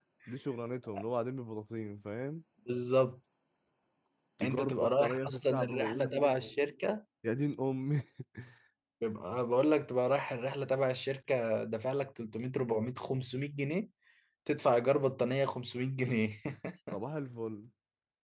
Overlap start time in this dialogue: 4 s

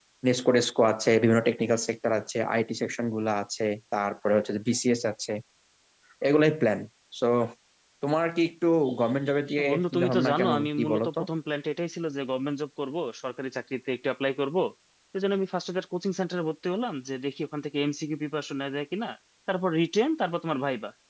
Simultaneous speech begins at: 10 s

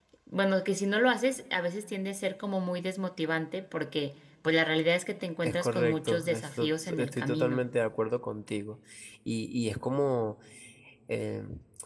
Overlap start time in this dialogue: 5 s

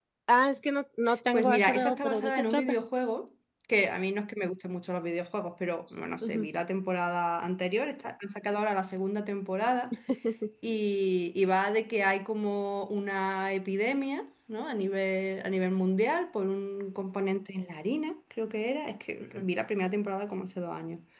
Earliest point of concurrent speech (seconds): 1 s

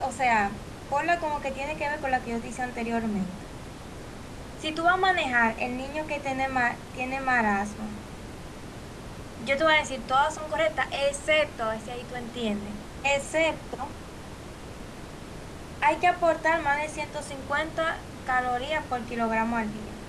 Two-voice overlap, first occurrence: none

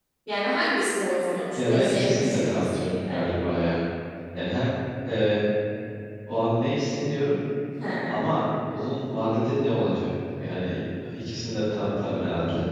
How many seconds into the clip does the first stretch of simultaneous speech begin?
2 s

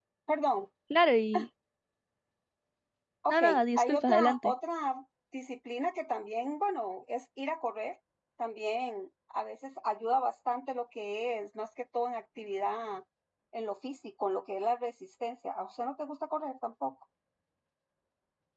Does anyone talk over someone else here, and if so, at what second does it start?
3 s

